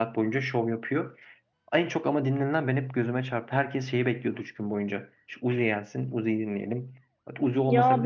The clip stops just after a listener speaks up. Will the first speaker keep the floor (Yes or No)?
No